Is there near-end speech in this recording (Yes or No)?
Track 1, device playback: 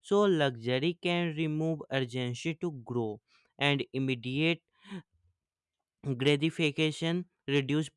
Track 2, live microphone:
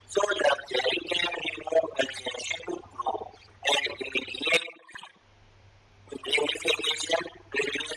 No